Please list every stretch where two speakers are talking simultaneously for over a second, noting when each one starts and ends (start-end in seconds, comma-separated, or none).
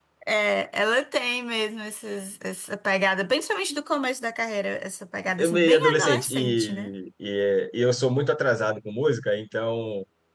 5.4-6.9